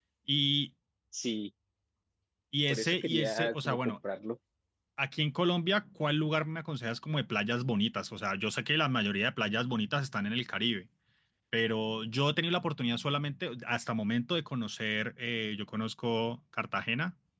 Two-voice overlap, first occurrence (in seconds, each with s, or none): 2.7 s